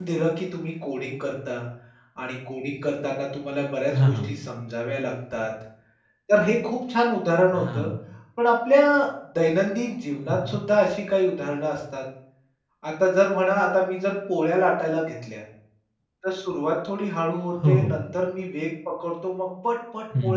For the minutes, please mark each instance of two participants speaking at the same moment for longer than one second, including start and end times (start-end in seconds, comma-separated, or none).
none